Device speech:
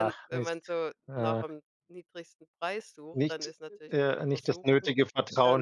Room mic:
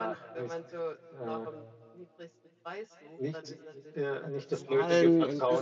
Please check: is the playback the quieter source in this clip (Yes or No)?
Yes